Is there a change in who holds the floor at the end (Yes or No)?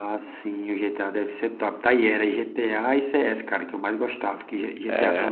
No